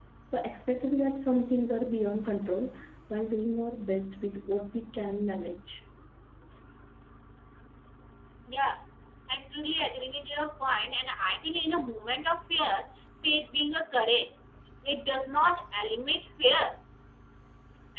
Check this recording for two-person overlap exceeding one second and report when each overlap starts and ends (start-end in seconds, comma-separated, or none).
none